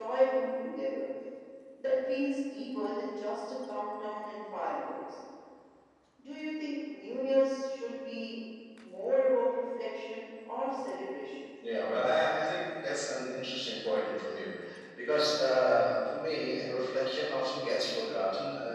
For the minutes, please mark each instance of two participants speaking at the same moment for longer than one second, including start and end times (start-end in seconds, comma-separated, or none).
none